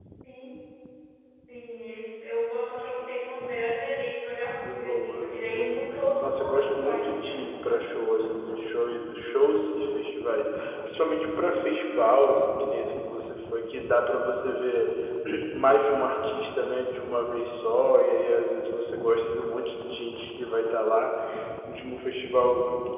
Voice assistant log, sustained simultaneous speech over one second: present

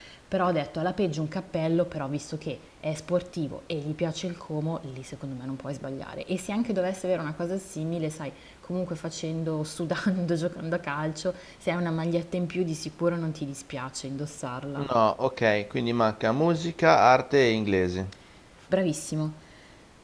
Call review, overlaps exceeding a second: none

